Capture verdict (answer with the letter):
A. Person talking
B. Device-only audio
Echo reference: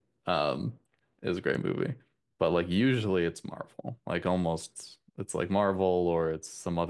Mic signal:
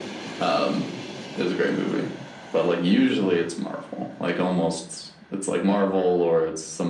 B